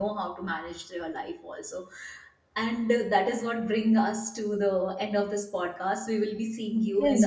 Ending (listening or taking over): taking over